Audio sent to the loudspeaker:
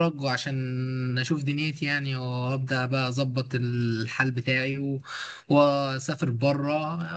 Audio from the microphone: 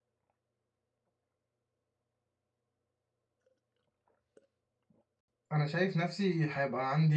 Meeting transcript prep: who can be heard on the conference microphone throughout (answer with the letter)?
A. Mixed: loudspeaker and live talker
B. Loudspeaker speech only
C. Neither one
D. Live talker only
D